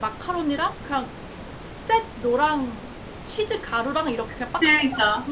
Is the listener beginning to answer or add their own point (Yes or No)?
No